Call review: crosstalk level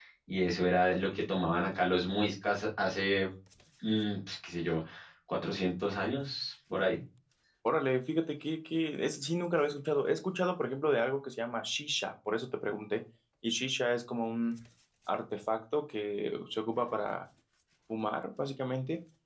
none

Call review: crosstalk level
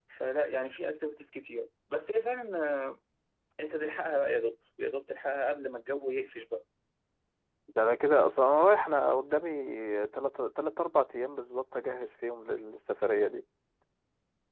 none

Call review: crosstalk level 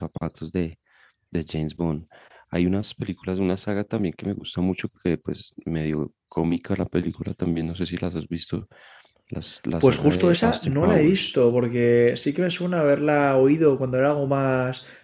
present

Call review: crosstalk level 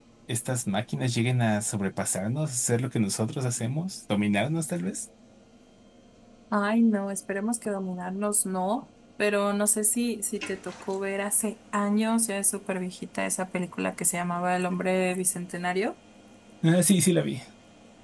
none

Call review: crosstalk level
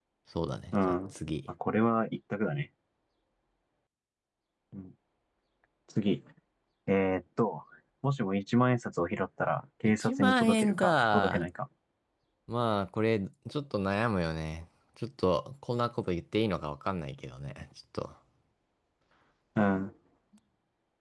present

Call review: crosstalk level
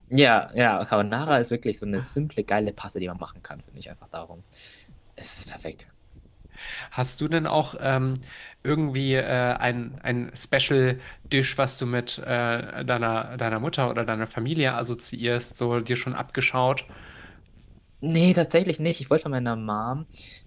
none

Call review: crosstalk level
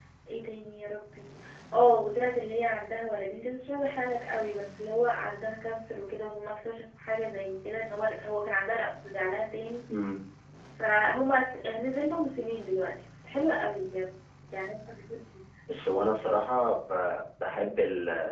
none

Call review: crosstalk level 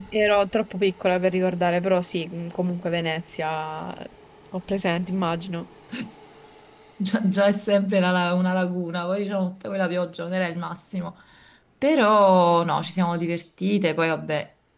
none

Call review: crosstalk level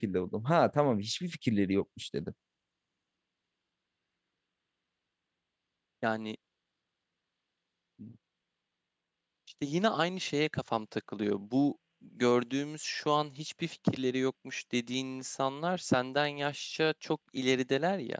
none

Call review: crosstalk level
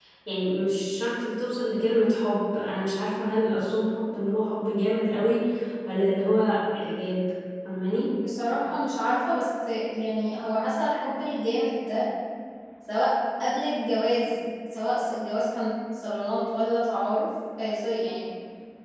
none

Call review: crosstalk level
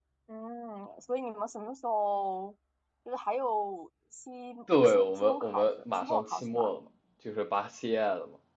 present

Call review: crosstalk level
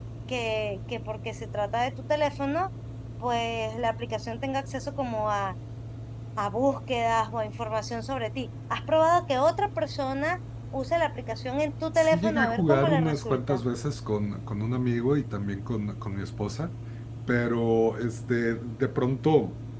present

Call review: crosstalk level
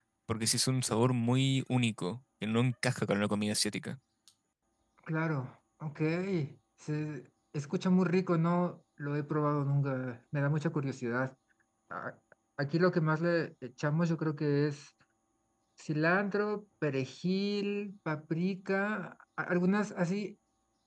none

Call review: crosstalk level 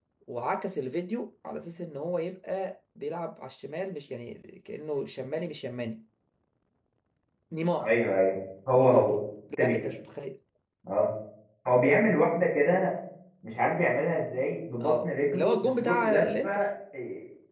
present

